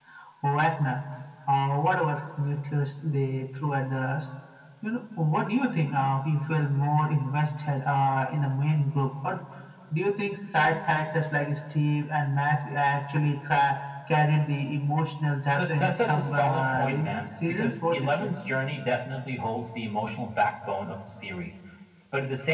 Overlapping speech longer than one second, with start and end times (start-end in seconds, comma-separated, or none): 15.6-18.3